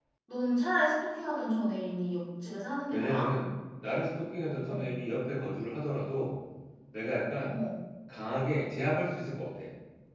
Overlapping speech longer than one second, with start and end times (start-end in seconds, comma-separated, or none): none